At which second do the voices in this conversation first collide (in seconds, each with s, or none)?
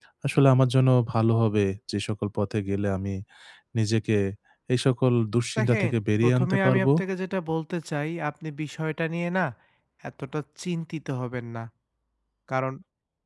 5.6 s